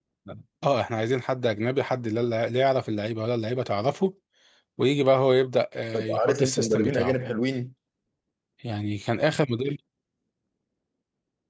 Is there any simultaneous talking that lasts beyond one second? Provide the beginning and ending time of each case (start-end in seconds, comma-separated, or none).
5.9-7.2